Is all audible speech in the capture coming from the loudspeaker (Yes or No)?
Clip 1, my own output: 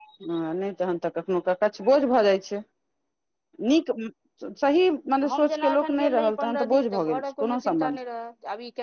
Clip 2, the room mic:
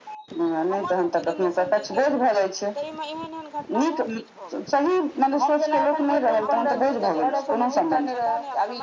No